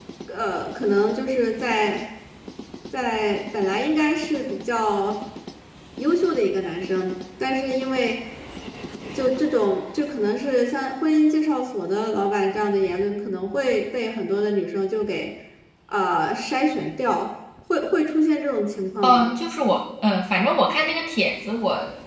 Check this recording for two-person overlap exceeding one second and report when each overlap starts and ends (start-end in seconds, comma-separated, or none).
none